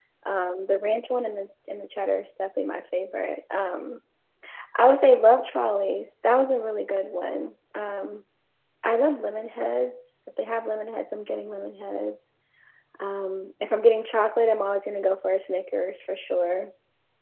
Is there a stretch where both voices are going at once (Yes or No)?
No